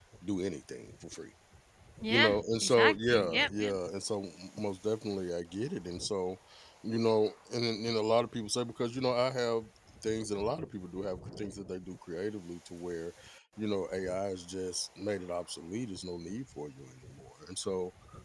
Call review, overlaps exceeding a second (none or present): present